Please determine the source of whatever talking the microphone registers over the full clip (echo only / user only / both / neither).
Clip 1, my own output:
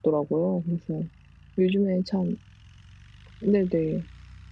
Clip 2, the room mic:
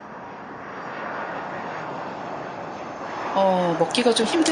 user only